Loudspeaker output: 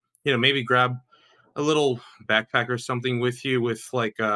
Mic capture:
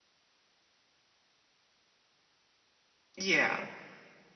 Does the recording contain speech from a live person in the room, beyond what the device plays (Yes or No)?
Yes